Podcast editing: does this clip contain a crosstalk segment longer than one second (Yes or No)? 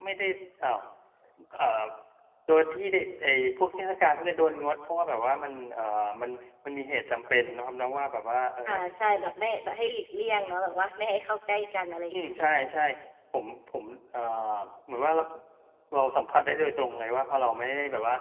No